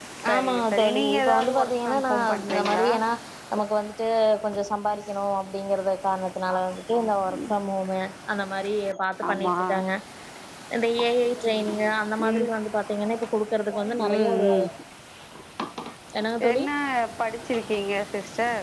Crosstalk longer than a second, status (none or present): present